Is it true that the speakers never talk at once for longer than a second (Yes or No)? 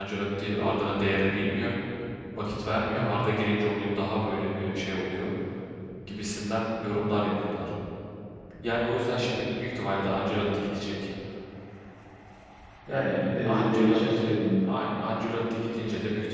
No